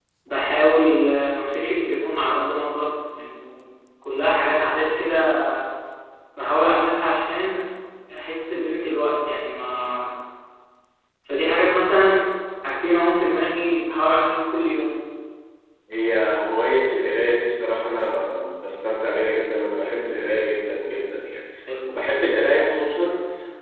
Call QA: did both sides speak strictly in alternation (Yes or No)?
Yes